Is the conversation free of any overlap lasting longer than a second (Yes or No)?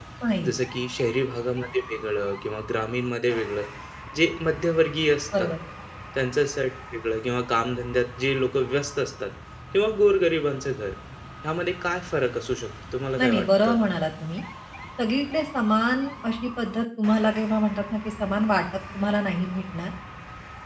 Yes